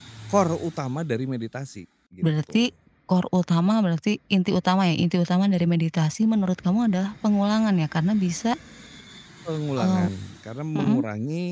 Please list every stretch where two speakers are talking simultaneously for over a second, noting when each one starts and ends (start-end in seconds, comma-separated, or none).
none